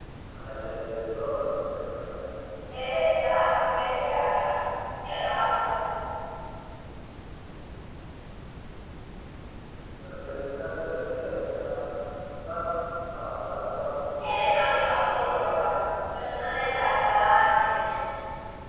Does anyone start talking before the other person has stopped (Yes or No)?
Yes